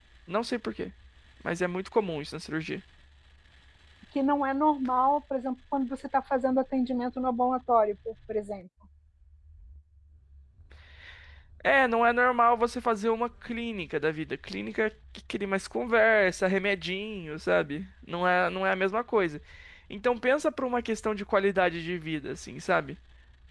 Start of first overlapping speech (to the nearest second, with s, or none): none